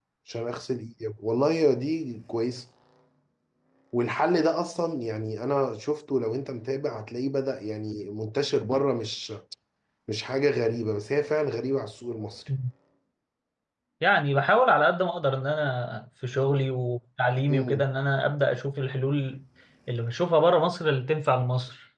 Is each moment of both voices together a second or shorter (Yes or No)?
Yes